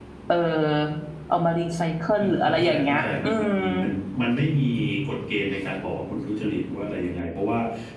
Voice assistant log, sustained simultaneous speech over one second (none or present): present